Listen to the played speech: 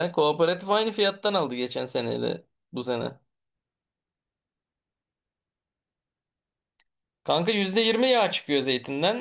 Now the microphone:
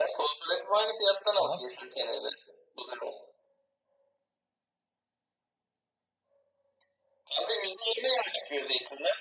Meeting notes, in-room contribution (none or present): present